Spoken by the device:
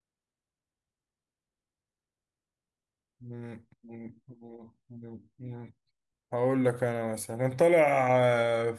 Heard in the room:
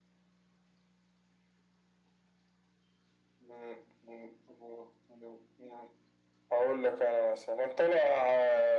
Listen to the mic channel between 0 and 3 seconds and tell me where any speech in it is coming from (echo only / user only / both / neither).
neither